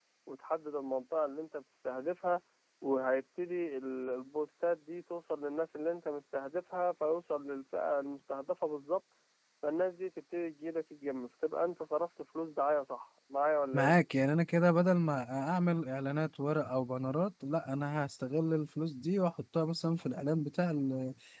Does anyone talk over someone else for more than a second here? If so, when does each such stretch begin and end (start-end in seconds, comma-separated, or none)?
none